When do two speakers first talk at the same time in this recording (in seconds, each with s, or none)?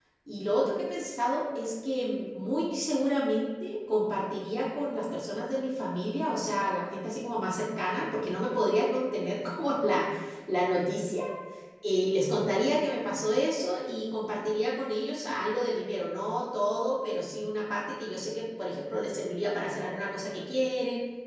none